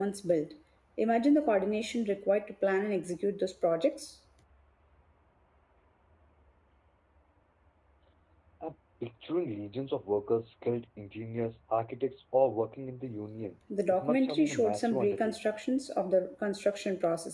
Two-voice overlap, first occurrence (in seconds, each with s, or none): 13.7 s